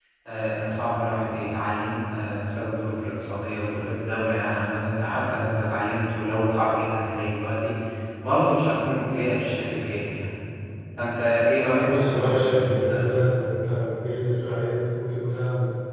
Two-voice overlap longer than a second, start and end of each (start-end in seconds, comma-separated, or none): 11.8-13.1